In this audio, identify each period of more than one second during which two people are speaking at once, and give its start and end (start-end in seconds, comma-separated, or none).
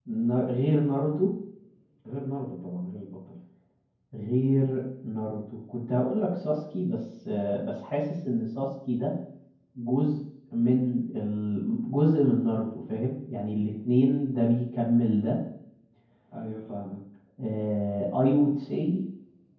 none